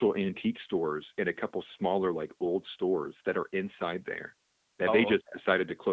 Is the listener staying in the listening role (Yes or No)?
Yes